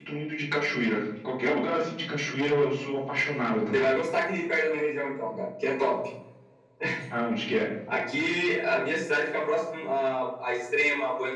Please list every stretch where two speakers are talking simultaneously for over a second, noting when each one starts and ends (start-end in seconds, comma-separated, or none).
none